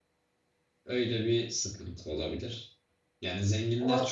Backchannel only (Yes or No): Yes